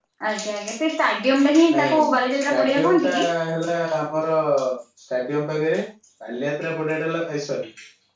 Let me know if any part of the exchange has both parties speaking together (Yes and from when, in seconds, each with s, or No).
Yes, from 1.7 s